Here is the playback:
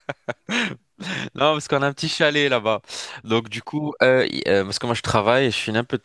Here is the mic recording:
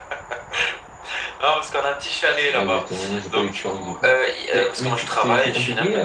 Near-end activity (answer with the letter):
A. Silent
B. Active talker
B